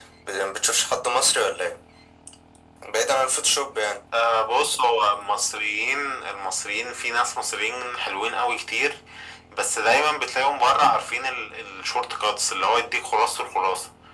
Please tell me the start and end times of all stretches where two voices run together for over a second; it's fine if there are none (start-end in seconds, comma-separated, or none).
none